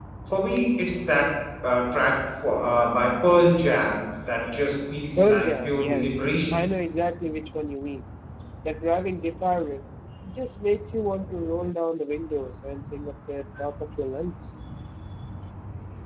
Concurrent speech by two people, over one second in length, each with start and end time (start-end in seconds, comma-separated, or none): 5.2-6.6